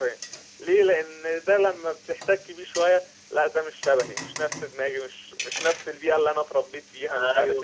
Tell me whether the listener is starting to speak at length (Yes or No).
Yes